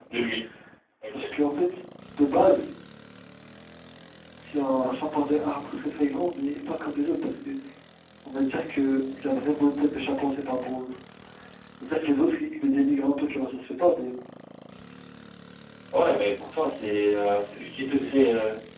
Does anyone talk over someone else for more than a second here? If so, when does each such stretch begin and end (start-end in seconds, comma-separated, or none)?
none